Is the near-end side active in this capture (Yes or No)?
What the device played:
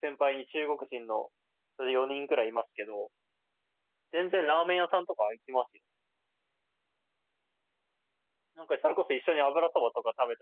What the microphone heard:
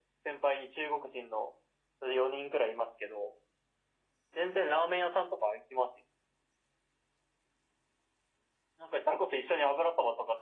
No